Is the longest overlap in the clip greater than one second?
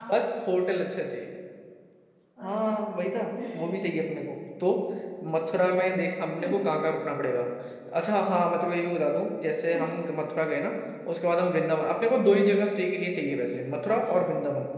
No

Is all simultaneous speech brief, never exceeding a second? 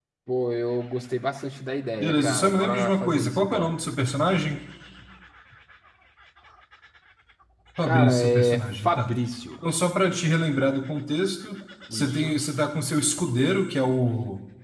No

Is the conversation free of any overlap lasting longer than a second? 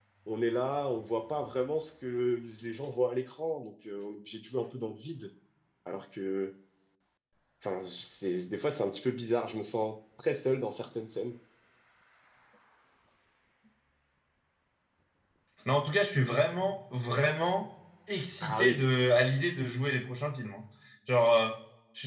Yes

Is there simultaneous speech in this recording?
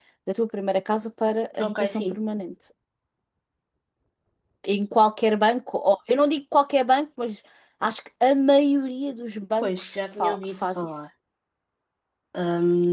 Yes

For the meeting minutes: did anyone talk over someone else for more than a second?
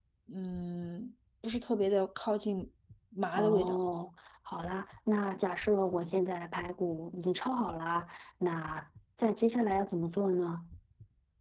No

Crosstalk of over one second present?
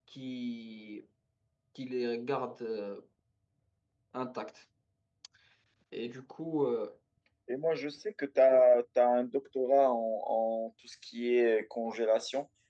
No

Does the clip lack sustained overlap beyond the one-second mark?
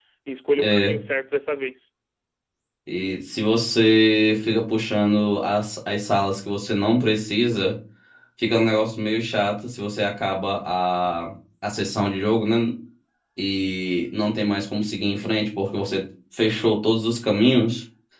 Yes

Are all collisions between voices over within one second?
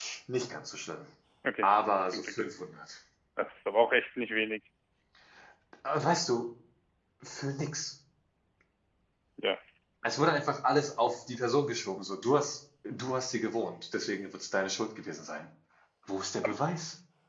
Yes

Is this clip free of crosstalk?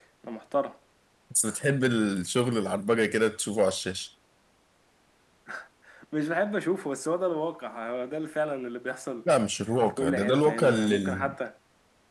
No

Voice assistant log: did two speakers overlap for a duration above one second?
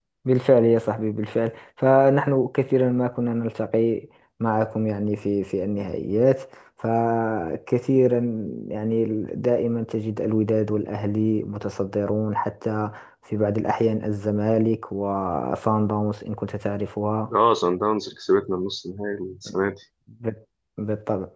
No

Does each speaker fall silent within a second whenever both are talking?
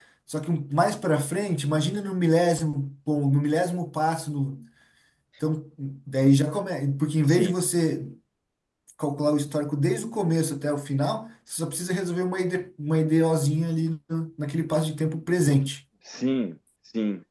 Yes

